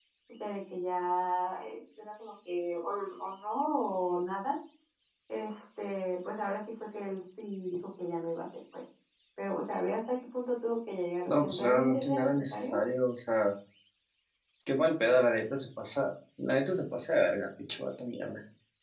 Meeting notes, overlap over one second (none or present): present